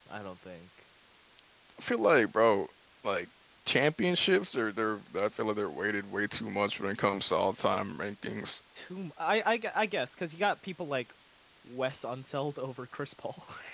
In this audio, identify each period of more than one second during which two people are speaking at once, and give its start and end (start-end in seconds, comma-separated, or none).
none